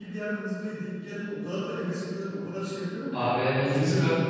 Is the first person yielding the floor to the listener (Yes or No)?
Yes